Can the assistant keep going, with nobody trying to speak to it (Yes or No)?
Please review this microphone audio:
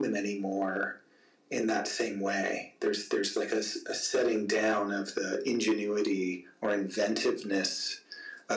Yes